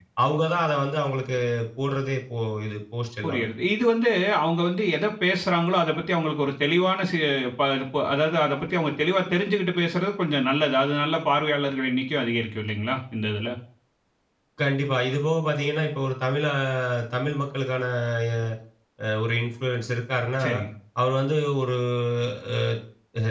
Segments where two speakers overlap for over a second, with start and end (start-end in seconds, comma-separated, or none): none